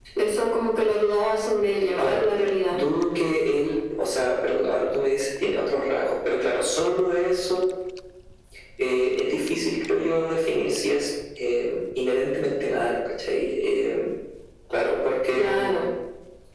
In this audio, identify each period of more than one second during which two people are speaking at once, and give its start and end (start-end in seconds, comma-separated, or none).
none